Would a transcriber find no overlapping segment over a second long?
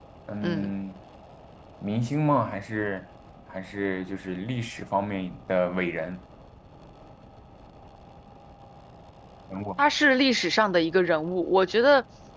Yes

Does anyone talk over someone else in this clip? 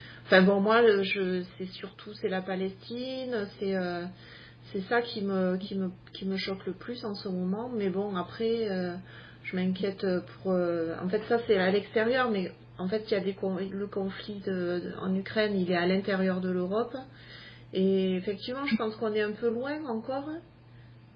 No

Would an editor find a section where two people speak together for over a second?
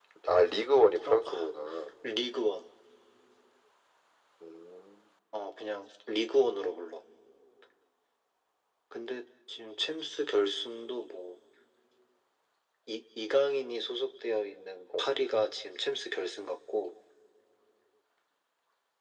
No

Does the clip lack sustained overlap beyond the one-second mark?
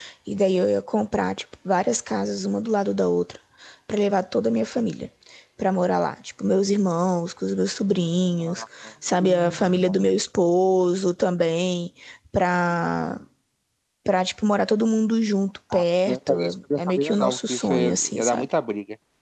No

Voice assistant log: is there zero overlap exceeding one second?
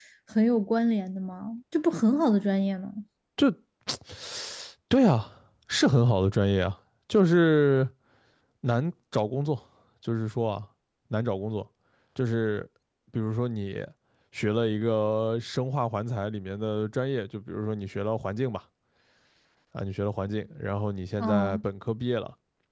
Yes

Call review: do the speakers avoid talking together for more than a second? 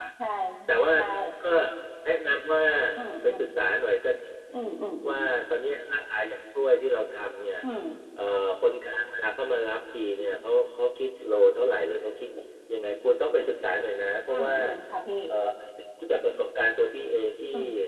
Yes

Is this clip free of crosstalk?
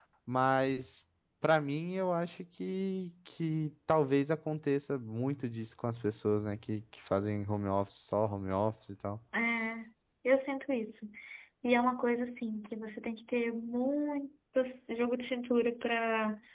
Yes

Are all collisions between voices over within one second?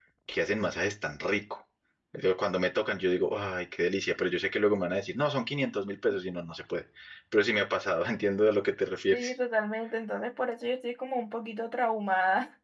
Yes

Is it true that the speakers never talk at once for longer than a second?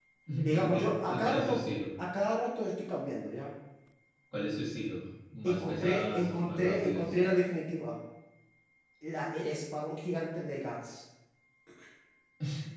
No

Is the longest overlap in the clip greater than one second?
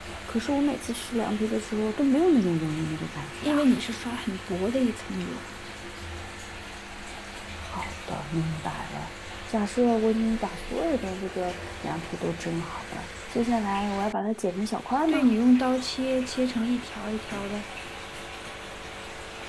No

